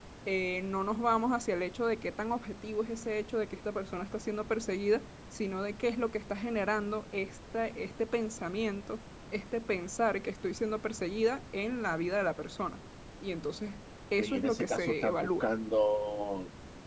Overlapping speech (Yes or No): Yes